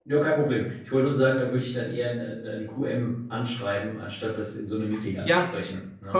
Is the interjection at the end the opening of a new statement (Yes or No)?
Yes